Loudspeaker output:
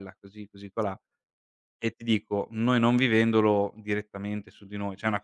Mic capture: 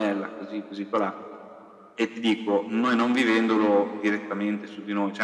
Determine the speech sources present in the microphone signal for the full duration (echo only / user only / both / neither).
echo only